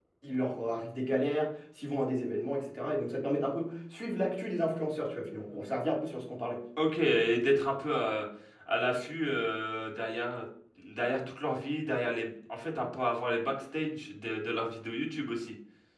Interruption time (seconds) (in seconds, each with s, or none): none